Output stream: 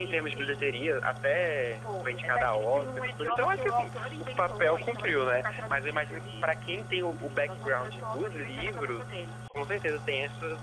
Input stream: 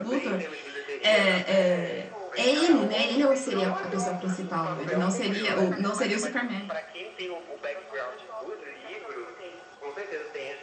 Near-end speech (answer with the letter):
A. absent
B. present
B